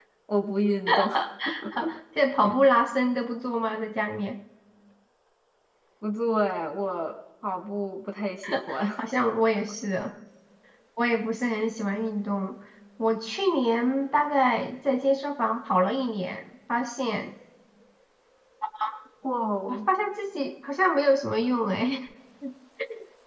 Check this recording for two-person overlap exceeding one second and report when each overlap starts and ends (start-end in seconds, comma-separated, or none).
none